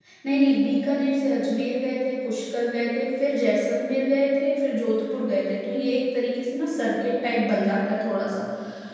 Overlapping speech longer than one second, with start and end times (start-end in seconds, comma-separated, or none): none